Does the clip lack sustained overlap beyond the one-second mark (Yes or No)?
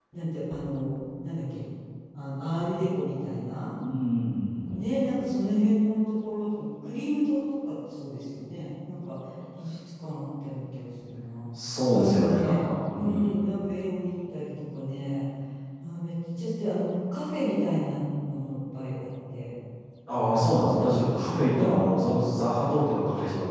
No